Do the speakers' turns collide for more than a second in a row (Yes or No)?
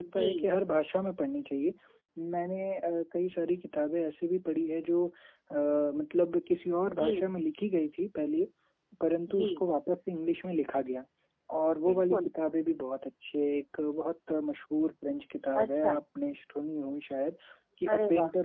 No